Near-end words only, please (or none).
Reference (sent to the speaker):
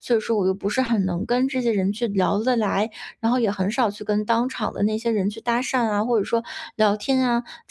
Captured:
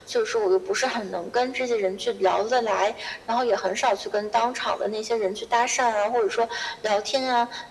none